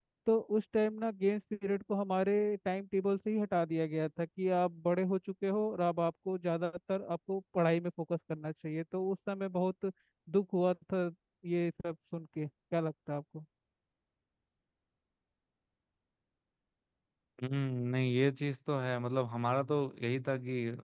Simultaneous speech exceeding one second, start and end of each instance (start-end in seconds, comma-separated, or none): none